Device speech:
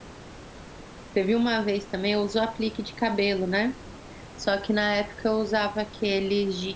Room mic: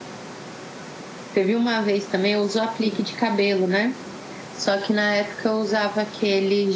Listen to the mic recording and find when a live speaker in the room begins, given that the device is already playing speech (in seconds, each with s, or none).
2.8 s